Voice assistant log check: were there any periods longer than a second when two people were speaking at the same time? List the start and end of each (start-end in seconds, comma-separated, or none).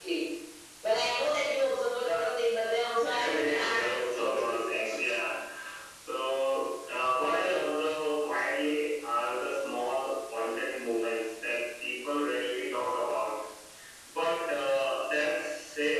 3.0-4.9